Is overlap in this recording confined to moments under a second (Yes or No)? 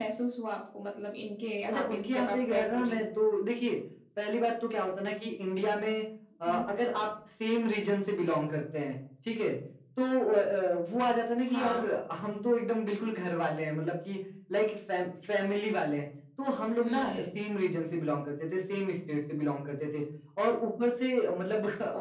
No